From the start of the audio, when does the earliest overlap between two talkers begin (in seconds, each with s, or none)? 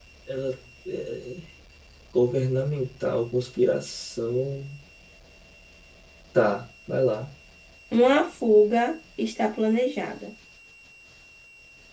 none